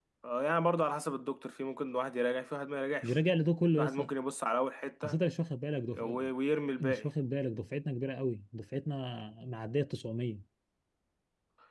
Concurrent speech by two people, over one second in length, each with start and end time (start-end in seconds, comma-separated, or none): none